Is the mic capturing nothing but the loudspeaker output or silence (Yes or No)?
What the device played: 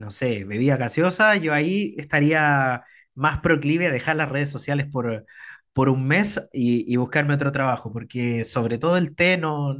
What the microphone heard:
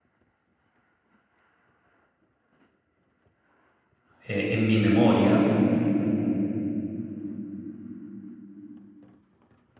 No